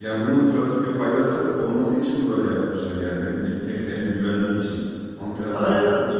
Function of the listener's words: taking over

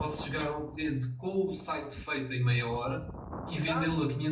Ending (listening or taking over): listening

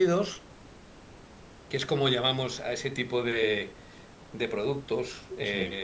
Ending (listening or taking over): listening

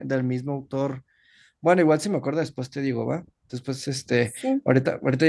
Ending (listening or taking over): listening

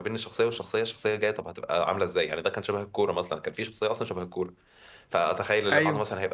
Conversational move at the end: listening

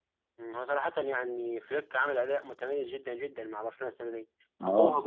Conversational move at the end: listening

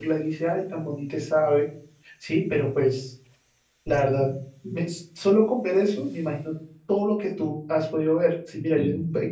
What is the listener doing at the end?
listening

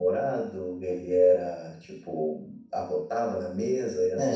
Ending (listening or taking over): taking over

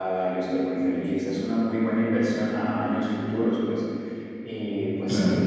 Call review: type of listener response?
listening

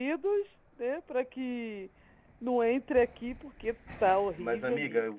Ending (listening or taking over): taking over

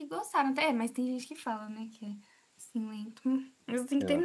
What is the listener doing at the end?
listening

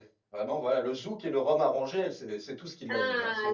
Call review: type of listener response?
taking over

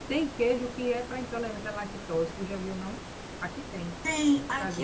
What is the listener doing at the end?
taking over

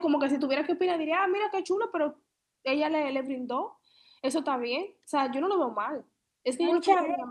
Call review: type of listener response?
taking over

